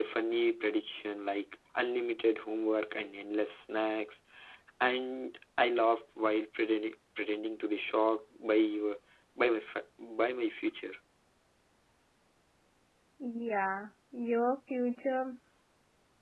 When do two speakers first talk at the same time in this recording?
none

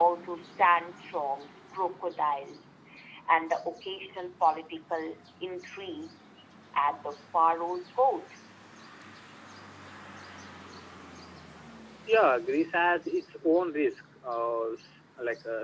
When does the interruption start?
none

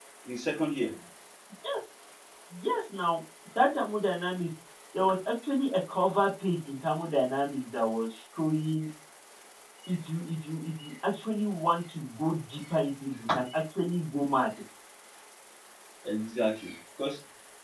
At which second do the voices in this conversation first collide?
none

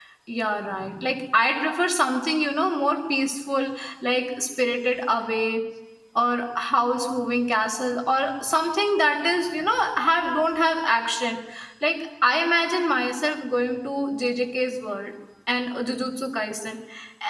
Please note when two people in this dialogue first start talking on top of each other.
none

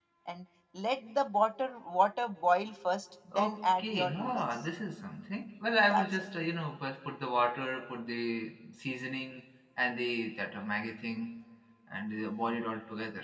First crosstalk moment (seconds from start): 3 s

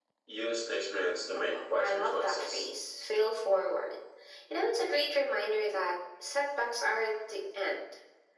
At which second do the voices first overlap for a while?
1 s

